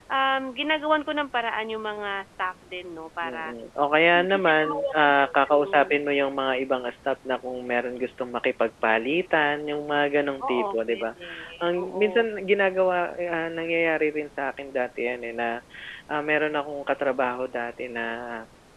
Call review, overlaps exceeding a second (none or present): present